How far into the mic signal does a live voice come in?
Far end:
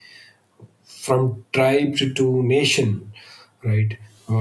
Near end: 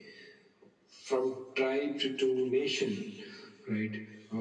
none

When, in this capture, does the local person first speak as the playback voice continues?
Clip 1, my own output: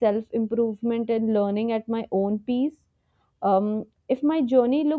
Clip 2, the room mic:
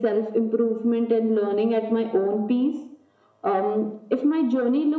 none

